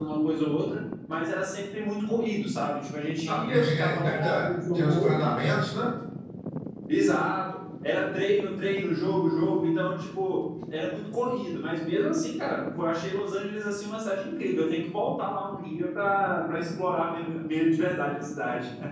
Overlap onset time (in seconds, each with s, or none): 3.2 s